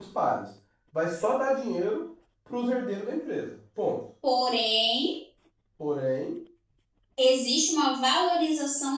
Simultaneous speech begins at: none

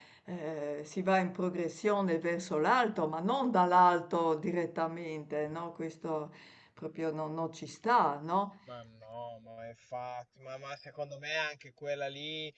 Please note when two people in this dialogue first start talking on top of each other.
none

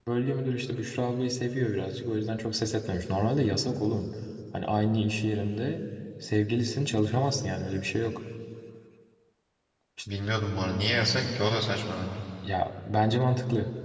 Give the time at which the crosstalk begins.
none

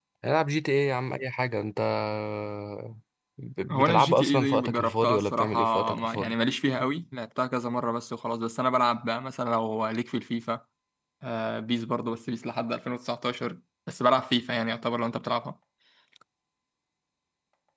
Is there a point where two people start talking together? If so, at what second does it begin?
3.7 s

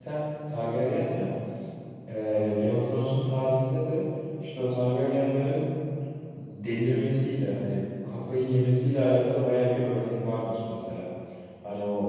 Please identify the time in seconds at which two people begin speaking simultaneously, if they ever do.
none

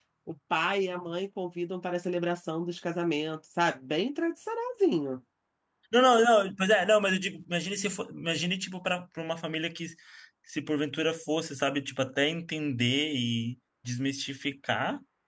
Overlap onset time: none

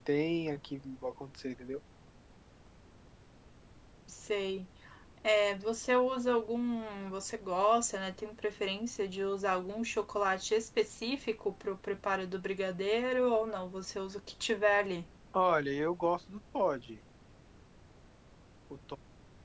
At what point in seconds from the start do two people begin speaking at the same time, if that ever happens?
none

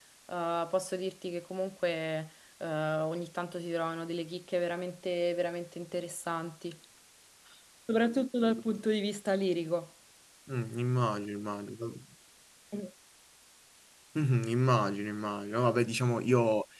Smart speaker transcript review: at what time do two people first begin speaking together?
none

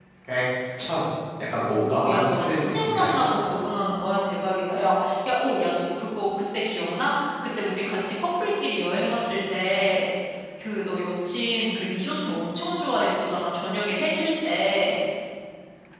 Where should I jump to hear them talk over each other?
1.6 s

